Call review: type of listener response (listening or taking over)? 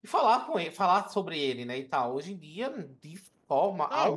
taking over